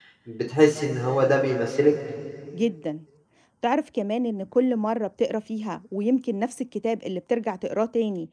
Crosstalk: none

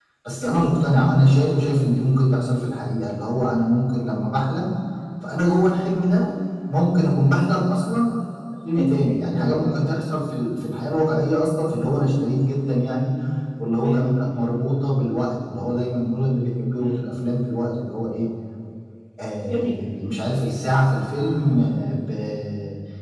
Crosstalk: present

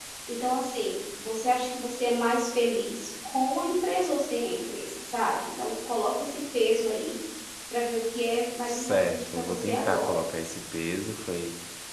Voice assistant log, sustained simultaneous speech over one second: present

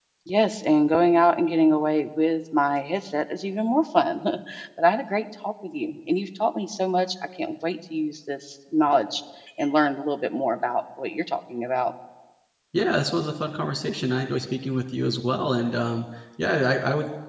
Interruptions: none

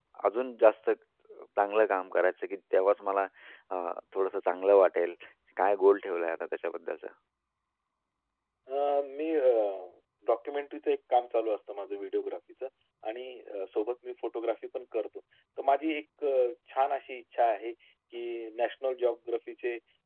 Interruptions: none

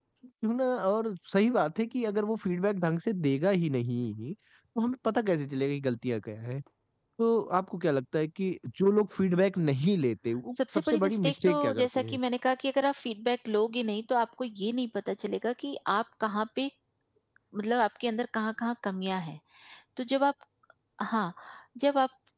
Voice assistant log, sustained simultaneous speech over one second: present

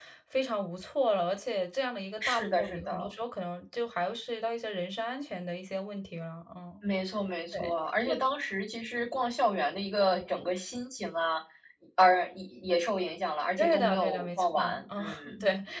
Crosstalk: present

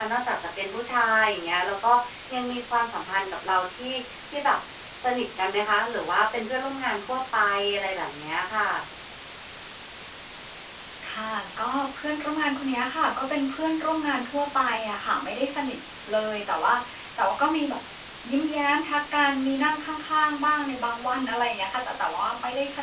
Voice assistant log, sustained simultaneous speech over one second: none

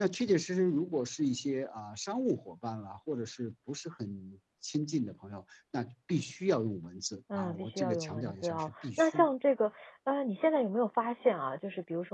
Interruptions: present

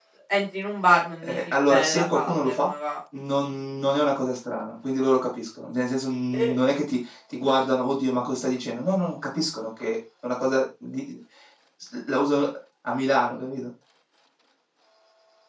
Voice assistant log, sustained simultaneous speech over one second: present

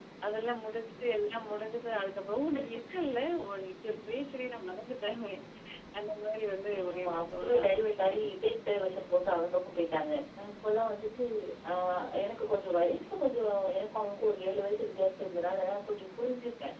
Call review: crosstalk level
present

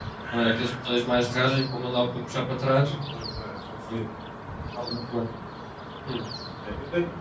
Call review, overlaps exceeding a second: none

